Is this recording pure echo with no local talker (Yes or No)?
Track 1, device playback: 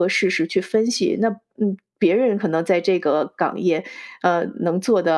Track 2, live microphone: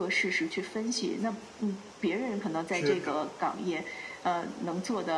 No